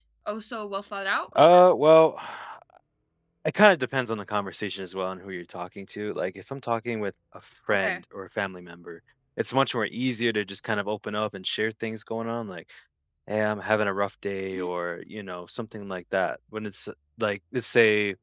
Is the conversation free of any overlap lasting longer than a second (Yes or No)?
Yes